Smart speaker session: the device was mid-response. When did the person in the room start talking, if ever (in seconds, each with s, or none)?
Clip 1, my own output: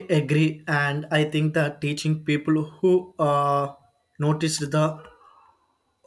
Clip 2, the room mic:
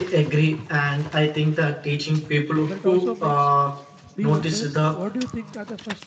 2.6 s